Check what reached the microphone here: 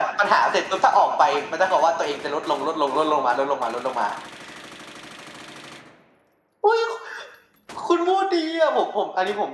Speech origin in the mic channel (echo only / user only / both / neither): echo only